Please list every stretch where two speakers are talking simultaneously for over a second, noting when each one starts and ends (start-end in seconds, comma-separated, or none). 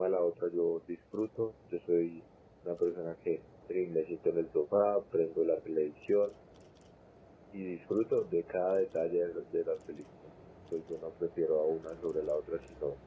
none